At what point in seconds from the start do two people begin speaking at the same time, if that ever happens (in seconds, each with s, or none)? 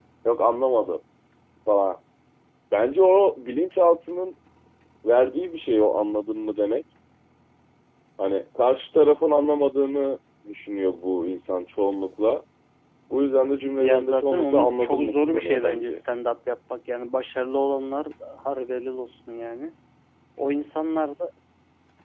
13.8 s